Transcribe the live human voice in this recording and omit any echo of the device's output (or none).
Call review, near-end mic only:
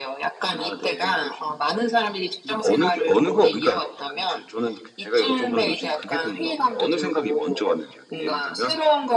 none